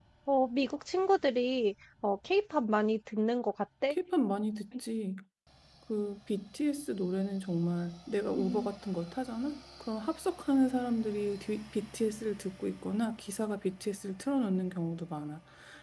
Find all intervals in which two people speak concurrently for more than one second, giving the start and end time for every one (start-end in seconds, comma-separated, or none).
none